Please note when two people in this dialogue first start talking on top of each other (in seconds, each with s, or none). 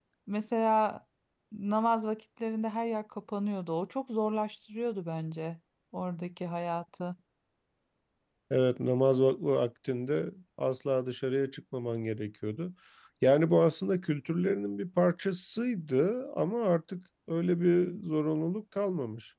none